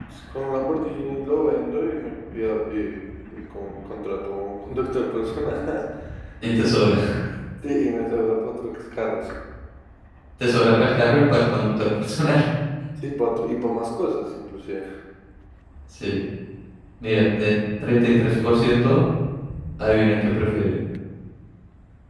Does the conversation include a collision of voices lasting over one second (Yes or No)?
No